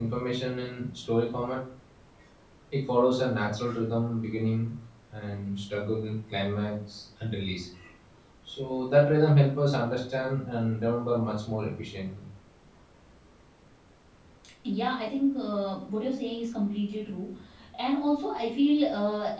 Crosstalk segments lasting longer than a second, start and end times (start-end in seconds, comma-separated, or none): none